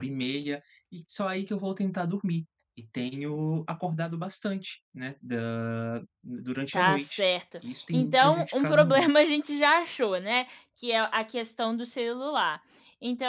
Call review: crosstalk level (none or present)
present